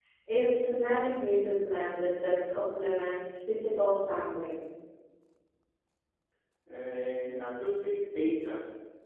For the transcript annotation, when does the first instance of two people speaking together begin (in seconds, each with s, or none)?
none